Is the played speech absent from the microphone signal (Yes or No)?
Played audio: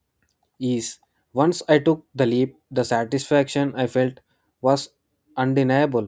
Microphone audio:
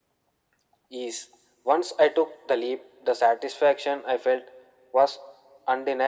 No